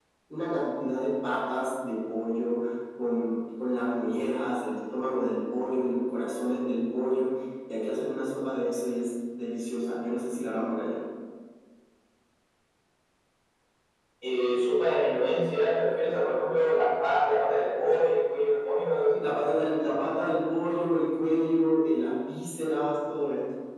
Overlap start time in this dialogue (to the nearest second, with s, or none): none